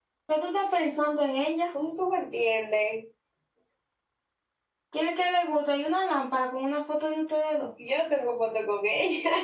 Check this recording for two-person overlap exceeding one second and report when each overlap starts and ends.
none

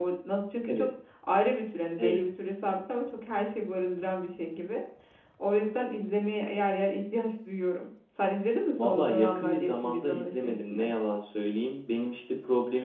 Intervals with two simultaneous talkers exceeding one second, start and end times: 8.8-10.9

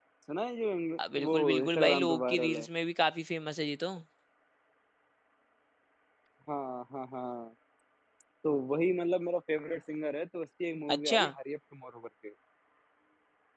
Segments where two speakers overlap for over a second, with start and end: 1.2-2.7

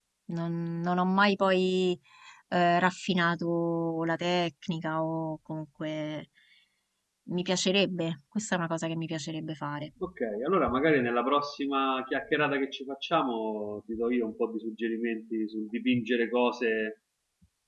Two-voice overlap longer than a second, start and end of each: none

